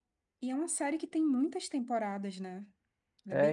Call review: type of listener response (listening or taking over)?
taking over